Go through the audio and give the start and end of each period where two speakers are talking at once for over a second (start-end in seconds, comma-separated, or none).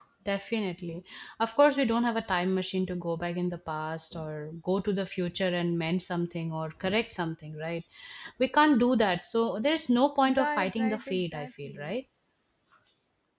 10.4-11.9